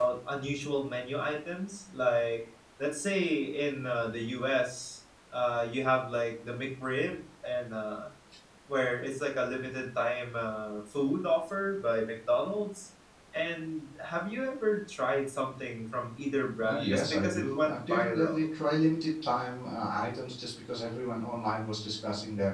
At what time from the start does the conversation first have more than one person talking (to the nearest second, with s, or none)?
17 s